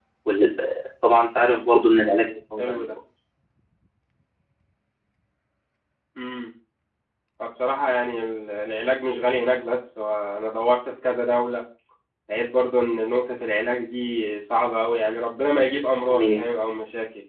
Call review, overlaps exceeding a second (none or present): none